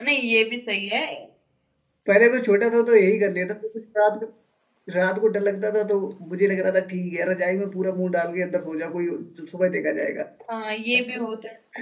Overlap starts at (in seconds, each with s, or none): none